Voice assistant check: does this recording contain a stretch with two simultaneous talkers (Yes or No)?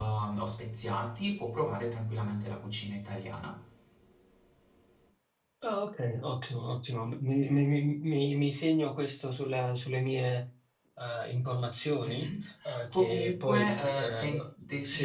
Yes